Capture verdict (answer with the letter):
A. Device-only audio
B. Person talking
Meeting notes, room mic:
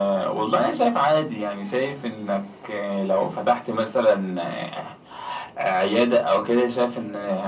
A